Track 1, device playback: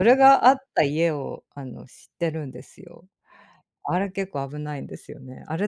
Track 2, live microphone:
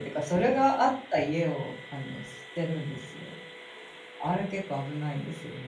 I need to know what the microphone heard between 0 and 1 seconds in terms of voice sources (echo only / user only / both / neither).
echo only